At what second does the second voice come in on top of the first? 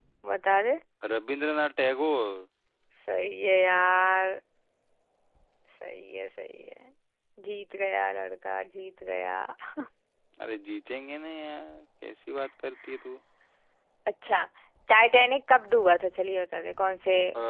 none

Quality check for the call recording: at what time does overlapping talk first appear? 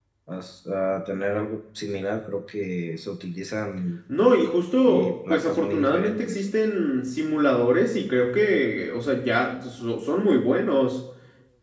4.8 s

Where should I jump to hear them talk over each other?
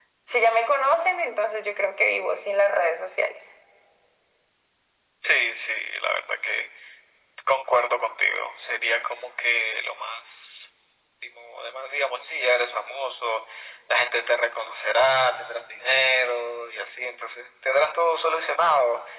none

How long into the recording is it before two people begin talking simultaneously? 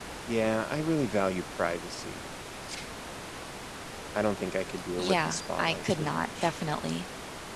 5.0 s

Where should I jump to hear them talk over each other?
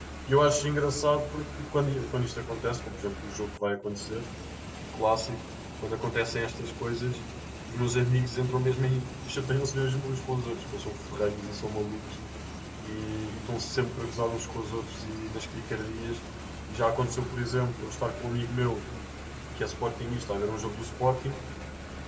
none

